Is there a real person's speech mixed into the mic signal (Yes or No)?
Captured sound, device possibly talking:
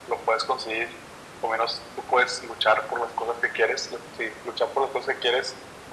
No